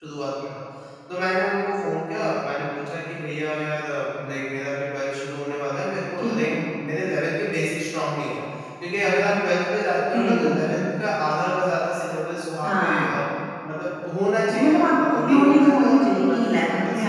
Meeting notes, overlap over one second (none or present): present